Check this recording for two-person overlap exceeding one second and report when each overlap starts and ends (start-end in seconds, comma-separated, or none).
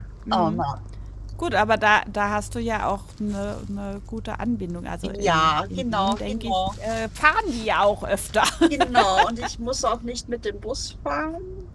5.2-6.5